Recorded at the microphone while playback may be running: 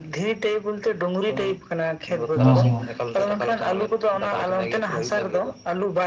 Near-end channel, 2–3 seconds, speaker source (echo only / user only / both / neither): both